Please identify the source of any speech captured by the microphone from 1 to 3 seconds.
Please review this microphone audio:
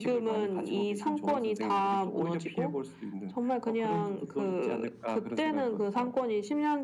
echo only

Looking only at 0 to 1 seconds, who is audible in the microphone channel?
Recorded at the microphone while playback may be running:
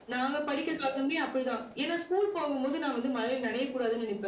echo only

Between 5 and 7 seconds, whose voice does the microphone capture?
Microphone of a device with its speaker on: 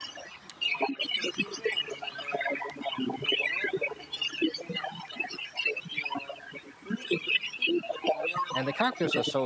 echo only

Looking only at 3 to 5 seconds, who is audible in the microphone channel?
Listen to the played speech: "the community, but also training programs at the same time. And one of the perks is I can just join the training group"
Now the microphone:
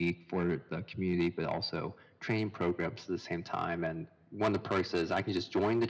echo only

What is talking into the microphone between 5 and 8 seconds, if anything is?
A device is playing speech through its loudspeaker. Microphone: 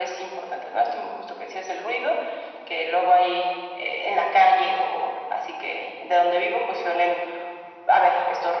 echo only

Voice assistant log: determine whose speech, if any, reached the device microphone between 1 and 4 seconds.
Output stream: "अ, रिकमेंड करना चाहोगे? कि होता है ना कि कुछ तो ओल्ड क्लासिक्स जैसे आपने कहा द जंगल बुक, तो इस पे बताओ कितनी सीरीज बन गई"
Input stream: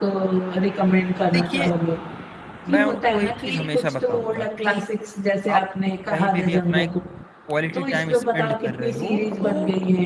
both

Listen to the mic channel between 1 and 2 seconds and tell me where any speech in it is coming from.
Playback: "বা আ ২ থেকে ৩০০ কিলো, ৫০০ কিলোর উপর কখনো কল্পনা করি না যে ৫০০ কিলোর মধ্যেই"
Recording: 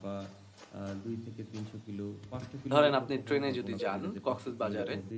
echo only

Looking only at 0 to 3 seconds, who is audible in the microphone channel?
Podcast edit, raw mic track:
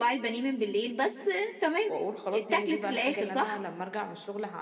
both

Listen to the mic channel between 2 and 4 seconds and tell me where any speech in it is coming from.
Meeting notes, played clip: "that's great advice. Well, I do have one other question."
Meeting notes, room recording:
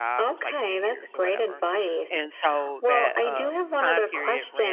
both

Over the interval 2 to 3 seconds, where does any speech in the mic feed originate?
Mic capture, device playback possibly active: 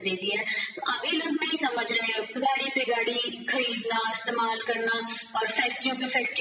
echo only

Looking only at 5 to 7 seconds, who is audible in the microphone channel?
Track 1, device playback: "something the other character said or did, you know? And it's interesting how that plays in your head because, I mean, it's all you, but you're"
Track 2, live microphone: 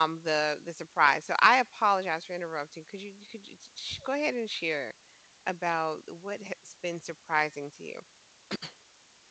user only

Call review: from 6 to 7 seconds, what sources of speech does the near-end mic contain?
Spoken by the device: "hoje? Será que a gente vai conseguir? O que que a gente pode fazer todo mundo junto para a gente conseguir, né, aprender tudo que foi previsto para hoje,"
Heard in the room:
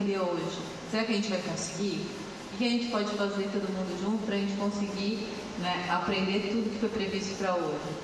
echo only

